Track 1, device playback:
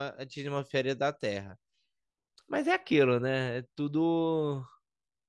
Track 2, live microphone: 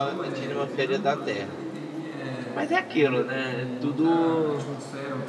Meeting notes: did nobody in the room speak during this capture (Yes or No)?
No